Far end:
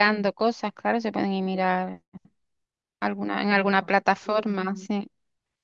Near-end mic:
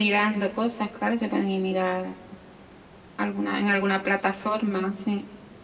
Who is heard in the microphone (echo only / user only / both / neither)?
echo only